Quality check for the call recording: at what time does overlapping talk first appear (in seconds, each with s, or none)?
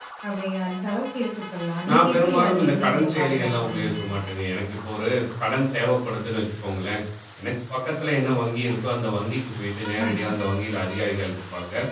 1.9 s